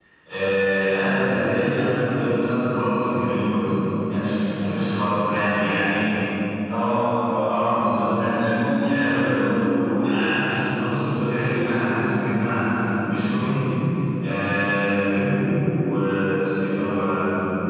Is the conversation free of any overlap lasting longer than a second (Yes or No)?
Yes